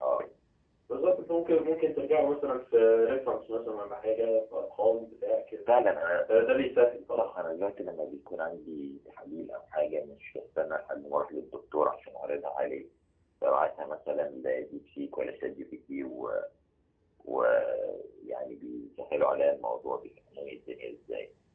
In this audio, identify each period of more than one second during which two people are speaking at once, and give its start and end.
none

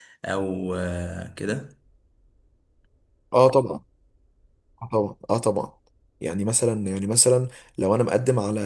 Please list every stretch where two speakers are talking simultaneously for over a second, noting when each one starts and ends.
none

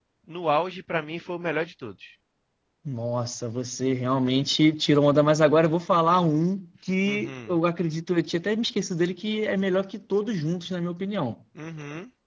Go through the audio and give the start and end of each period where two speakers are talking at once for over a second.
none

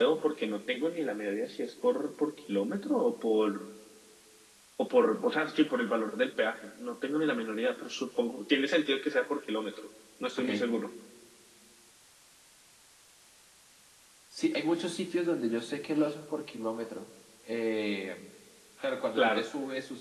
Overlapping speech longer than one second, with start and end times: none

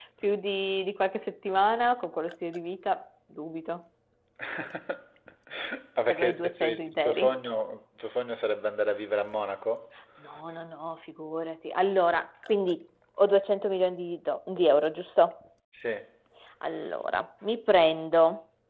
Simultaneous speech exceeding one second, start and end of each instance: 6.1-7.3

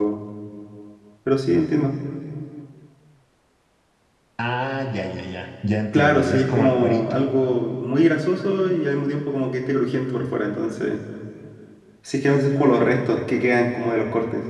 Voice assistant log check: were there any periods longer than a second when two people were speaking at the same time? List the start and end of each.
5.9-7.2

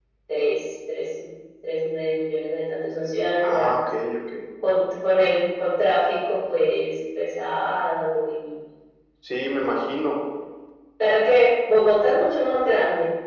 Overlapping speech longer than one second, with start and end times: none

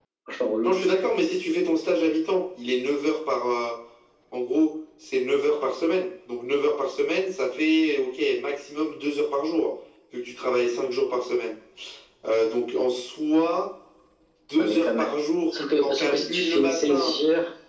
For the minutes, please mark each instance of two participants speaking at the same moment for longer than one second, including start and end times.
15.8-17.1

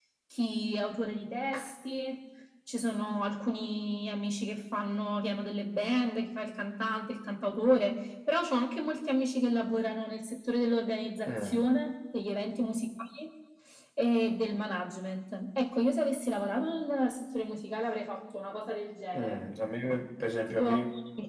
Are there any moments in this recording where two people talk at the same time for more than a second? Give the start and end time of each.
none

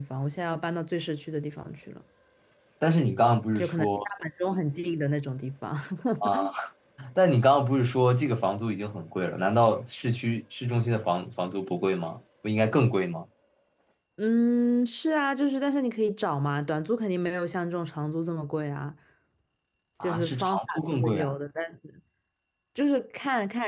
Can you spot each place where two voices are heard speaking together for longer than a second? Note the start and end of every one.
20.0-21.3

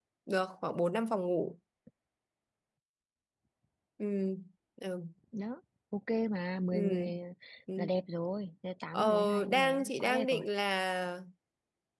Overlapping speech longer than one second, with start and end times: 8.9-10.4

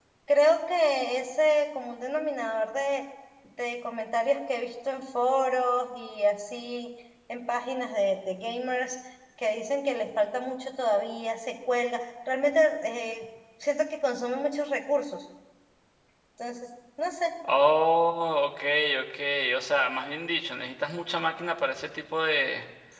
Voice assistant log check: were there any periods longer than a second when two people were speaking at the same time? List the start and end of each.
none

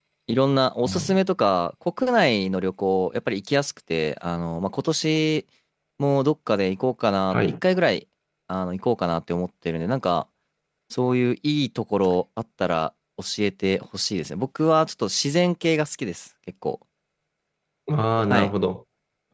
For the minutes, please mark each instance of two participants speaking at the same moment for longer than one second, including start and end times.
none

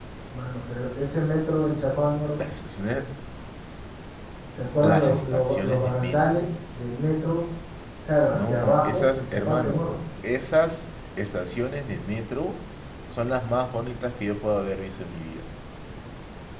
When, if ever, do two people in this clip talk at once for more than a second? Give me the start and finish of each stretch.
4.8-6.4, 8.3-9.8

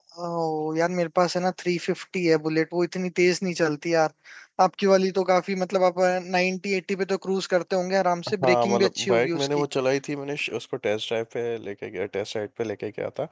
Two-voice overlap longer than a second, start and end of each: 8.4-9.6

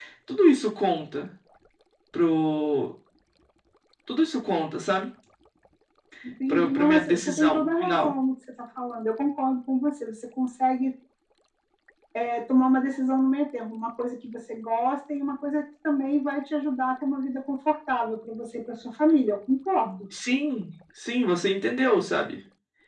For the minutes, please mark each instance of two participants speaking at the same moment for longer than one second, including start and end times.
6.5-8.1

